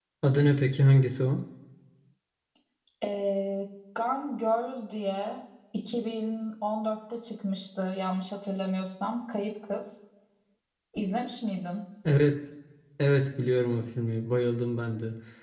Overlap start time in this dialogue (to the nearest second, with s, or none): none